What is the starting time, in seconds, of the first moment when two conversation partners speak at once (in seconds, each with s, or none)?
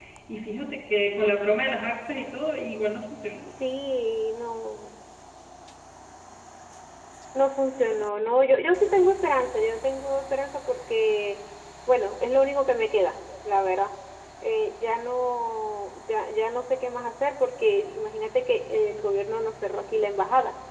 none